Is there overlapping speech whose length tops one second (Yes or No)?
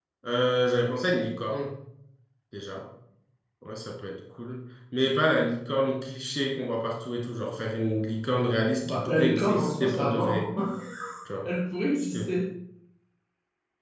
Yes